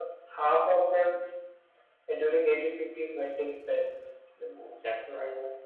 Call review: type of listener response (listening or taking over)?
listening